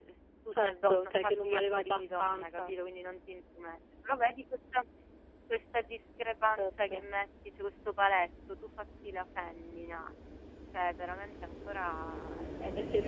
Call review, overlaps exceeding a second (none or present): present